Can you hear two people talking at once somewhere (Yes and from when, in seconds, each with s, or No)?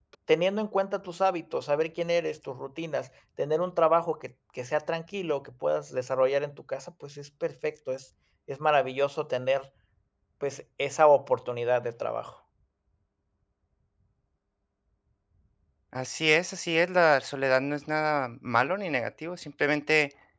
No